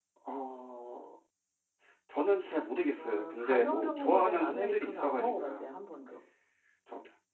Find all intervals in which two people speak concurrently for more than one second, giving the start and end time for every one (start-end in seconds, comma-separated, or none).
3.0-5.6